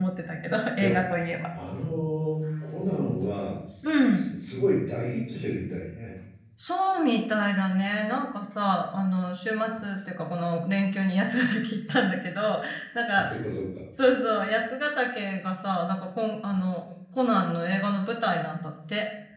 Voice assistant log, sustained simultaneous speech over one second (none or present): none